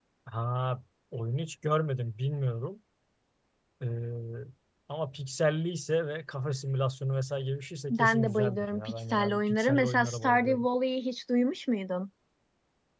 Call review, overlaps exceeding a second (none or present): present